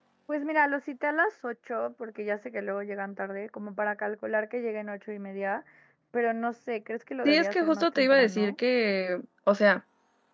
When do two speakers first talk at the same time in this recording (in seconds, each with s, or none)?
7.2 s